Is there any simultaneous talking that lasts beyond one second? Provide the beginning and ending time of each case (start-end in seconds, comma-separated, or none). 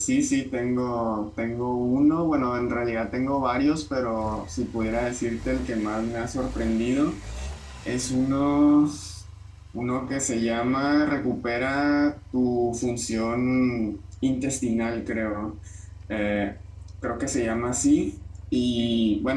none